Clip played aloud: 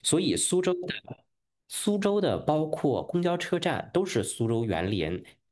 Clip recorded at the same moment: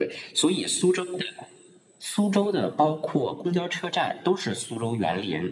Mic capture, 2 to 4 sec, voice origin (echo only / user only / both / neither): echo only